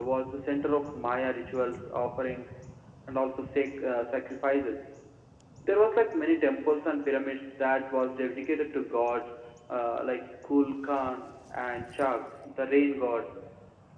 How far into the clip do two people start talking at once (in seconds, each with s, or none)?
none